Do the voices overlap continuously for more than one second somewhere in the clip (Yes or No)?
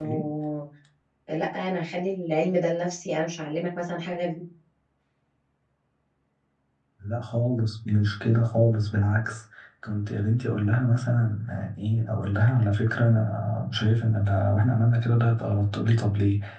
No